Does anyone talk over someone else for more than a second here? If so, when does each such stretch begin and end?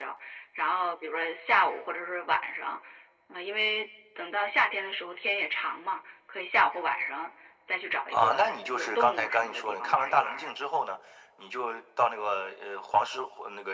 8.1-10.5

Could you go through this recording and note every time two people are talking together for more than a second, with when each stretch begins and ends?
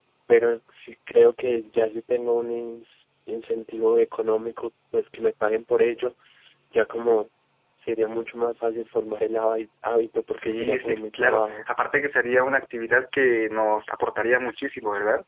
10.4-11.7

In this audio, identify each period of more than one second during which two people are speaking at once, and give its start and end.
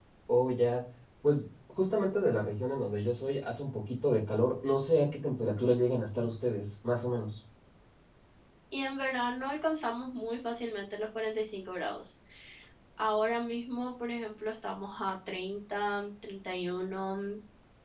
none

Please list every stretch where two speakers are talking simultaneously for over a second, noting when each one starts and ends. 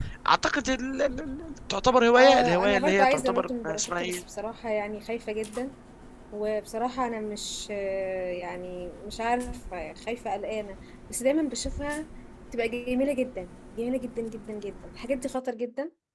2.1-4.2

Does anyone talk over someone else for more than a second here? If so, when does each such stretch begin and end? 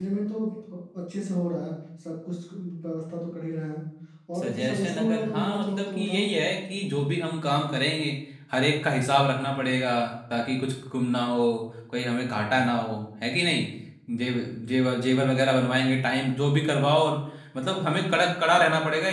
4.4-6.2

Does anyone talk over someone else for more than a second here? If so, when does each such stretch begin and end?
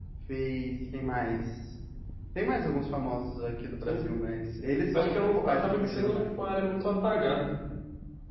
4.9-6.2

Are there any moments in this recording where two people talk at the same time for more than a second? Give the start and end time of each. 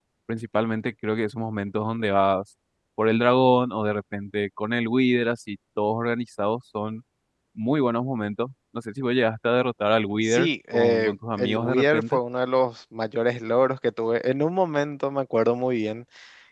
10.2-12.2

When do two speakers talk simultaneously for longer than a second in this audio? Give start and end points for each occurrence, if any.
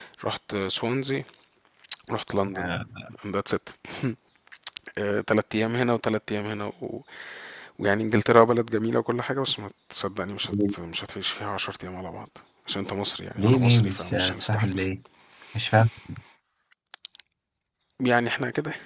13.4-14.8

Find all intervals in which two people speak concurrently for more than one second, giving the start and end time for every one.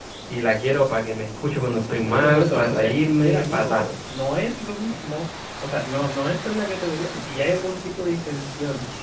2.1-3.8

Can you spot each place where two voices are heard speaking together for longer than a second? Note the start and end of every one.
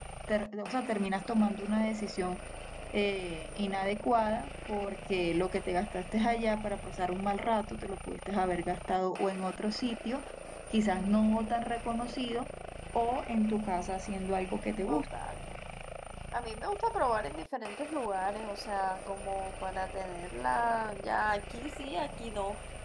none

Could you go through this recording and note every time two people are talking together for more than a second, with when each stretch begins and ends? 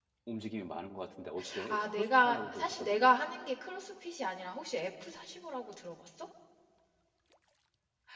1.7-3.1

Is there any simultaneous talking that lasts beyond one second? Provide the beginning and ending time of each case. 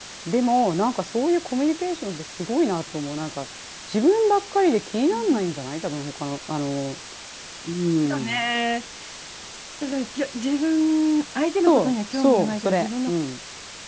11.7-13.1

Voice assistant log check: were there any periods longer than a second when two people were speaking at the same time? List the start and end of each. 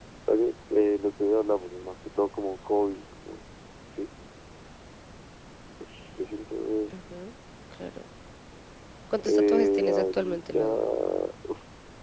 9.2-10.6

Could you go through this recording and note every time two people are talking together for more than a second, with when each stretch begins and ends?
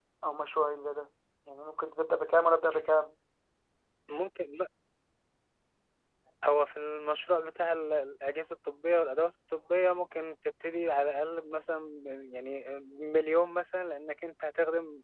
none

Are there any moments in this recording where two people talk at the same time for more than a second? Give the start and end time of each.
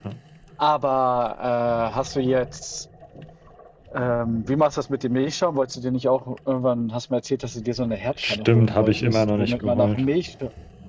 8.2-10.0

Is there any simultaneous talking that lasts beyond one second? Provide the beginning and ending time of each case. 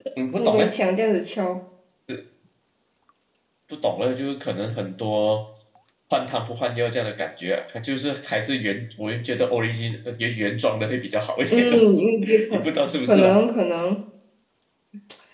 none

